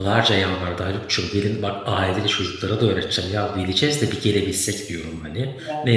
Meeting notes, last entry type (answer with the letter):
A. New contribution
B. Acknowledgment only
B